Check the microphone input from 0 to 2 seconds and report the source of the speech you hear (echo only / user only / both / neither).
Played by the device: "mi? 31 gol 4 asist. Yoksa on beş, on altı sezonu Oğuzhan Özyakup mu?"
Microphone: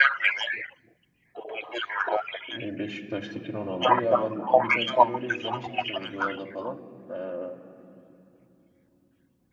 echo only